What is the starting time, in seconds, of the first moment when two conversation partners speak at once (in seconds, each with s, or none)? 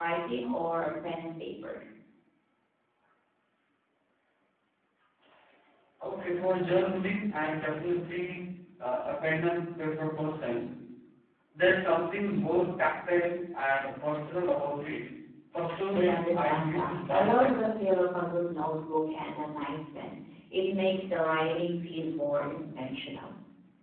15.9 s